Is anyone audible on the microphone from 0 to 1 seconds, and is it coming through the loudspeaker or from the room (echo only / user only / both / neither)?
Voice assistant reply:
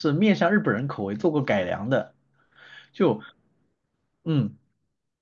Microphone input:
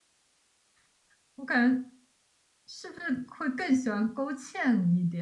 neither